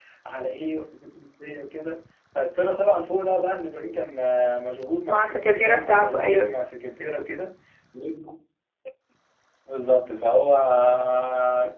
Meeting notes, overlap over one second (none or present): present